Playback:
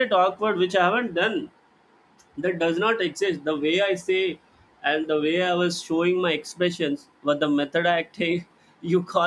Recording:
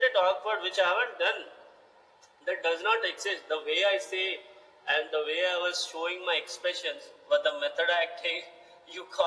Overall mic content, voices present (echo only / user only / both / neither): echo only